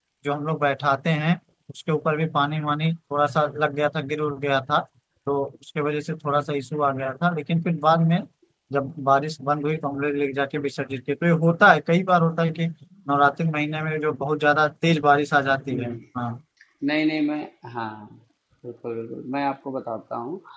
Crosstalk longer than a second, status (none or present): none